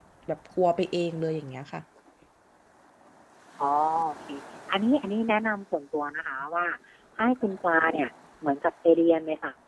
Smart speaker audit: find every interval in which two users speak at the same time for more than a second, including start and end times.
none

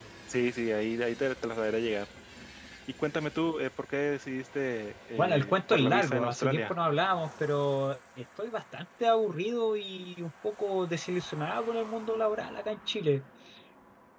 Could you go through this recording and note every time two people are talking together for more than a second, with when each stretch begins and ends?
5.2-6.7

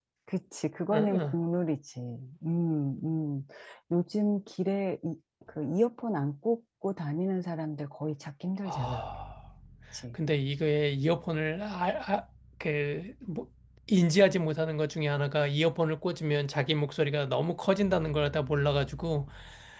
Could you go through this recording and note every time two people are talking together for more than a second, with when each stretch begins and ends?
none

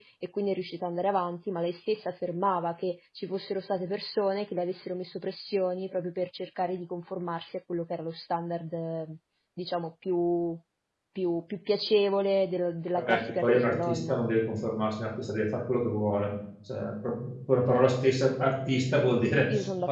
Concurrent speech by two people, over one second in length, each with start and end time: 13.0-14.2

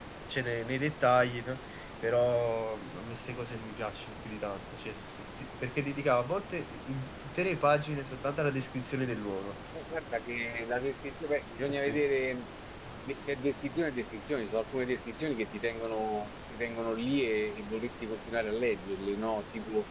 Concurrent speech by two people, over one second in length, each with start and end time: none

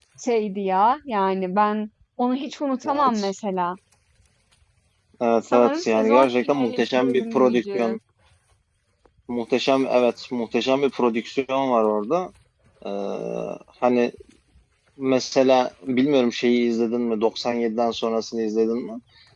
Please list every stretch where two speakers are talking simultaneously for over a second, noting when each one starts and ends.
5.5-8.0

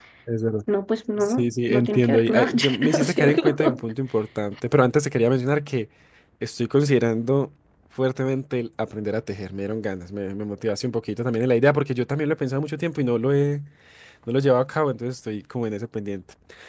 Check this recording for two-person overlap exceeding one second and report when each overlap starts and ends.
1.2-3.6

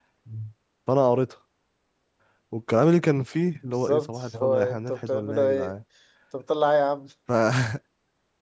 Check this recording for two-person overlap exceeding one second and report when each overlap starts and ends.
3.6-5.7

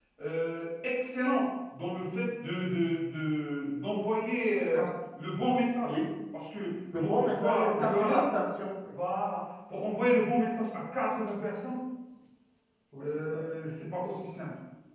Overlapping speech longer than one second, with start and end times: 7.0-8.2

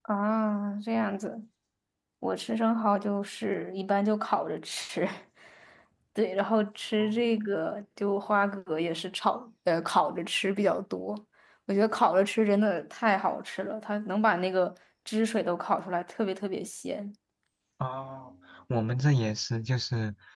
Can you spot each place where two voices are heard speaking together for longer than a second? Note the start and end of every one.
none

